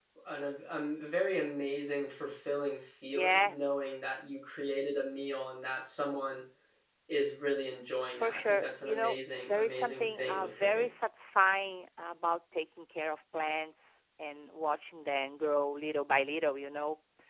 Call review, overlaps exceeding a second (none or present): present